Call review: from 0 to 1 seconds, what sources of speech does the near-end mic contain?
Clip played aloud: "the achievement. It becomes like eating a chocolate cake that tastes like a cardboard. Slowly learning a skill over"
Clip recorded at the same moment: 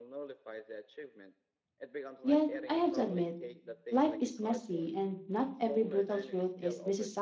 echo only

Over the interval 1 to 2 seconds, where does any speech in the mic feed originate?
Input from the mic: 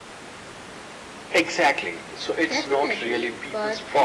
echo only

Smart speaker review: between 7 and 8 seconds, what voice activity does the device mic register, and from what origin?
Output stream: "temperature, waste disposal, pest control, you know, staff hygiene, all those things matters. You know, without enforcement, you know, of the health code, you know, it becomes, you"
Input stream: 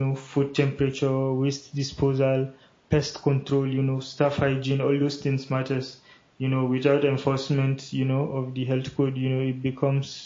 echo only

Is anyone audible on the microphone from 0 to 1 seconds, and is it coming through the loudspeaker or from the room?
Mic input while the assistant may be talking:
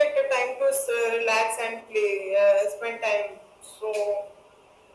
echo only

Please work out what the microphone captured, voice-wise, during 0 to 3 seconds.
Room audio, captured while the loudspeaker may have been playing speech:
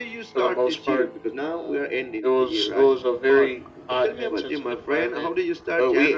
echo only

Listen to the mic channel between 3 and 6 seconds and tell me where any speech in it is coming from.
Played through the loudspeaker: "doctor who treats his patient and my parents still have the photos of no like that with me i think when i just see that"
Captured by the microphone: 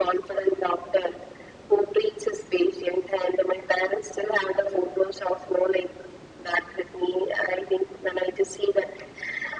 echo only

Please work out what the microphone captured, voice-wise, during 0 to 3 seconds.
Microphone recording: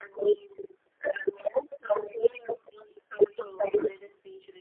echo only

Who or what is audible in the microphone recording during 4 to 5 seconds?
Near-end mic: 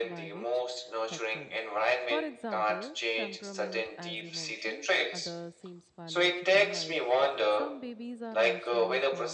both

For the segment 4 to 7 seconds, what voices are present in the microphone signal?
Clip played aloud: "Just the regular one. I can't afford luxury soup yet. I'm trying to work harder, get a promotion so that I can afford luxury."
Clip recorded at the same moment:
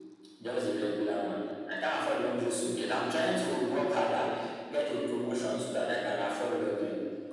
both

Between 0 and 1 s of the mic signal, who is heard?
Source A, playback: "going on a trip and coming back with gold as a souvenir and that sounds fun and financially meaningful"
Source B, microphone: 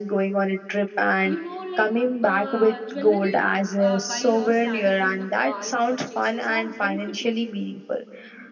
echo only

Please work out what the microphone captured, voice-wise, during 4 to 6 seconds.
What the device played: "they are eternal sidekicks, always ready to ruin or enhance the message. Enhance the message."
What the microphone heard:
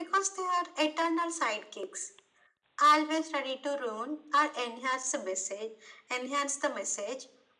echo only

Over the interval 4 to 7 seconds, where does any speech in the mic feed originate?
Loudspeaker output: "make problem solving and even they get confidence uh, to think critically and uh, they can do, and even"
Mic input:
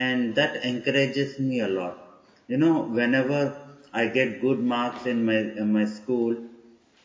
user only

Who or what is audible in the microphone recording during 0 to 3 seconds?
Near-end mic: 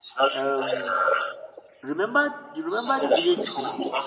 both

